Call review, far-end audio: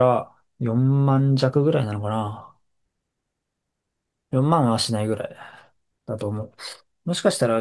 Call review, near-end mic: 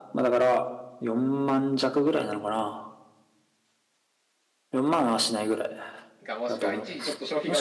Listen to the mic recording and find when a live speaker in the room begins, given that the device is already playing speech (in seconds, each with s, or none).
6.2 s